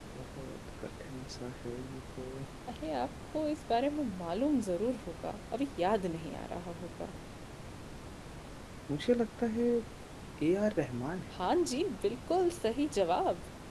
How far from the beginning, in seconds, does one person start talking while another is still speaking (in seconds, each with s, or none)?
none